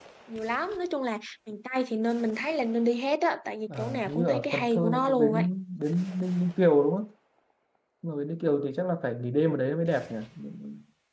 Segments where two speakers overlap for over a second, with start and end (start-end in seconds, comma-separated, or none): 3.8-5.4